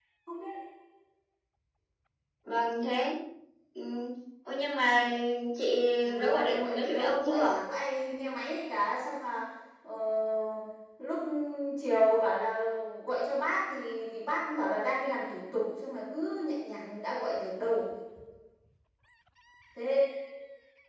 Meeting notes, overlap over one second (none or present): present